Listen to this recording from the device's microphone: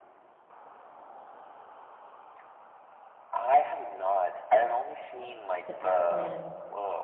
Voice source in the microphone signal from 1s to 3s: neither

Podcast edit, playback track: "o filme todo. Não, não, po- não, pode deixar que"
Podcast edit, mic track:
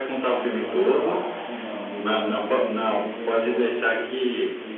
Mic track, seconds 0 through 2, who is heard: both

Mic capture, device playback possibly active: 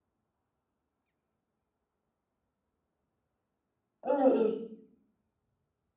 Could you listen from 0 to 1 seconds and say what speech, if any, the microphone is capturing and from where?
neither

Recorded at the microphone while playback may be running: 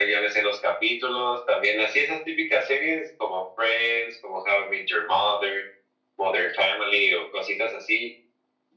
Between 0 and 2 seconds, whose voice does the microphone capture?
echo only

